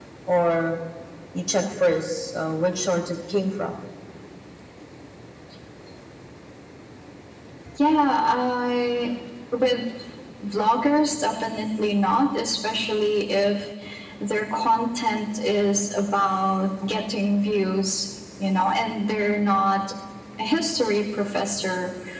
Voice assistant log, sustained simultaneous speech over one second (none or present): none